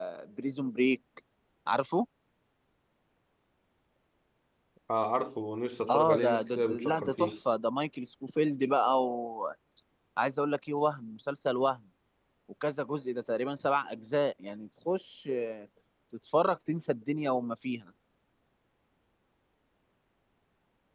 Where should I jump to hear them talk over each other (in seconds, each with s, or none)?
5.9 s